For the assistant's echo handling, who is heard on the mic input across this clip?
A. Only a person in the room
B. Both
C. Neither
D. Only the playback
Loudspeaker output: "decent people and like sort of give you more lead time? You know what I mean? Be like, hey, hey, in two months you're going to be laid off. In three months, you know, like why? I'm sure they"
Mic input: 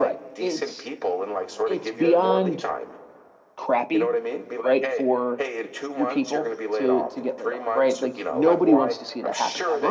B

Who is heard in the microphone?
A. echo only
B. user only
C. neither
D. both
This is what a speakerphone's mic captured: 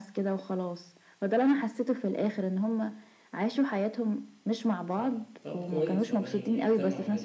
D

